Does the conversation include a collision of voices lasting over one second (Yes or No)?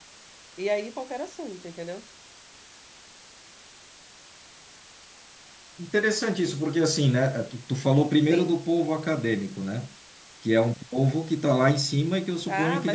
No